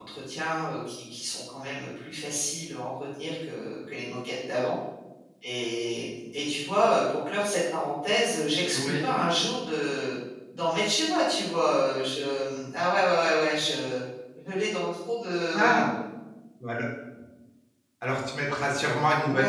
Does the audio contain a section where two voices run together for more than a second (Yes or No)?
No